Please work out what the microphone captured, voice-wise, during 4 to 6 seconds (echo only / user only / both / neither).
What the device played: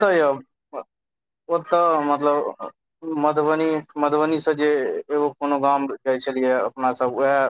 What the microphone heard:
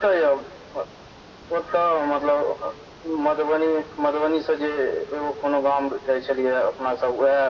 echo only